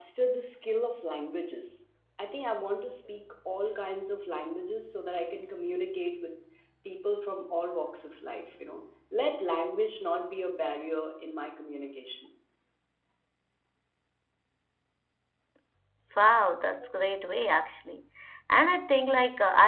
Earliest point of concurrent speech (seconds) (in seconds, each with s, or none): none